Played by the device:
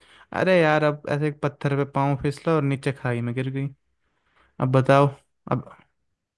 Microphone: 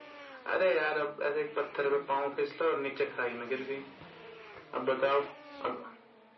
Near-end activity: none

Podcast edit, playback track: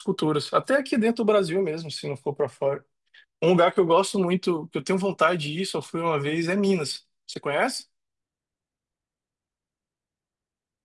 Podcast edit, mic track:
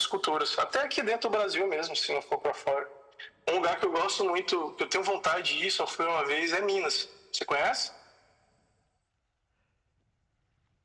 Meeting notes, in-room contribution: none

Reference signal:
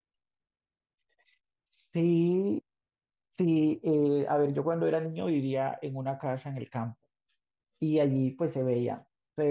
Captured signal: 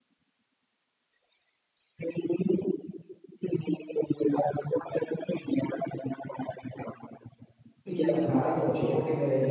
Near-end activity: present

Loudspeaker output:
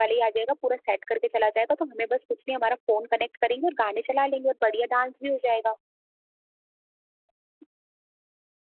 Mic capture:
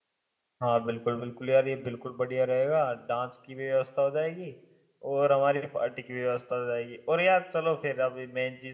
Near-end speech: present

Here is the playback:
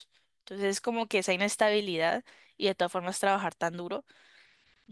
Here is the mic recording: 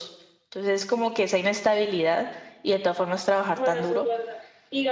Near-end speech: present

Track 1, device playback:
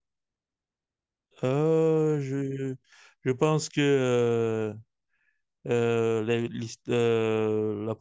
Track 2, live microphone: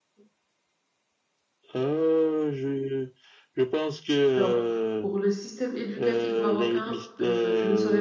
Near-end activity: present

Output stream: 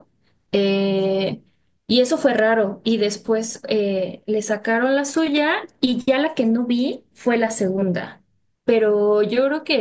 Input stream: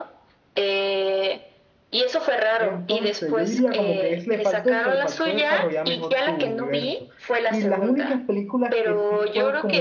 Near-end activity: present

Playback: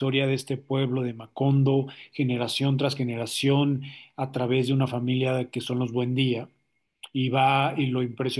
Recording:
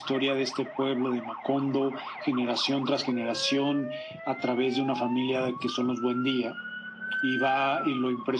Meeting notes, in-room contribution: none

